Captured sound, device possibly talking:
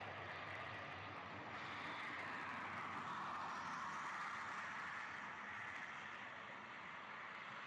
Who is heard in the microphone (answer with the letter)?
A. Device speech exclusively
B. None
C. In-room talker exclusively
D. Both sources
B